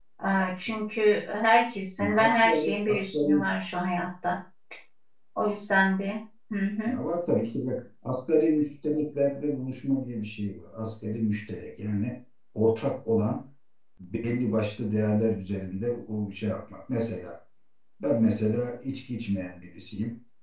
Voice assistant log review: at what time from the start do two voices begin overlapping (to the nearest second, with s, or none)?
2 s